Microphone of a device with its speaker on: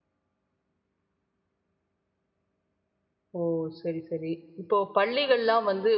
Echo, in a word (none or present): none